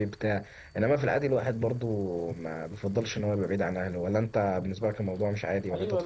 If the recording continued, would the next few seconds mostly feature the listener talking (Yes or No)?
Yes